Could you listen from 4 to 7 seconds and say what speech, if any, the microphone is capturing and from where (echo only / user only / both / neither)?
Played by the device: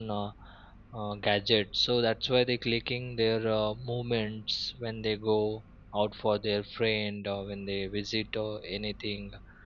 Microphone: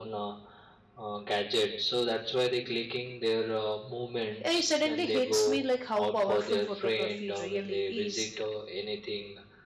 both